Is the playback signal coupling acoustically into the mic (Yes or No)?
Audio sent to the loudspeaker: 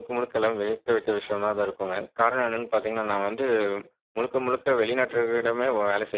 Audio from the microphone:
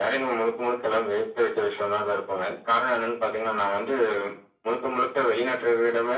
Yes